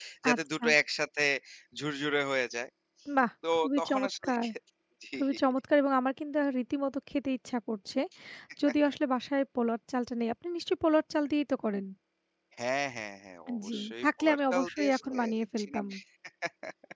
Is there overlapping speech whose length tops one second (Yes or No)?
Yes